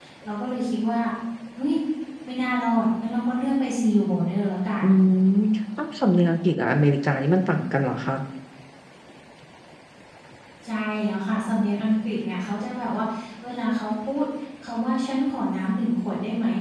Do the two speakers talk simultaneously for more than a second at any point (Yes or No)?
No